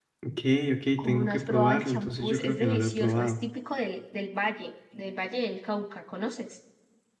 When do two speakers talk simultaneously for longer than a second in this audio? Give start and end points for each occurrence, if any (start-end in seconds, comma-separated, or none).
1.0-3.4